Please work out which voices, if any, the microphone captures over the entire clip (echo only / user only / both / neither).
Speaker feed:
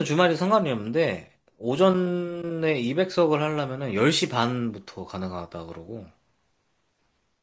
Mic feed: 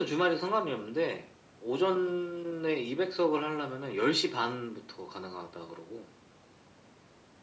echo only